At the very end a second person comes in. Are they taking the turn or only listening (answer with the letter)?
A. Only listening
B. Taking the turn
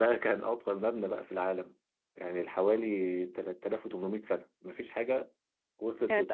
B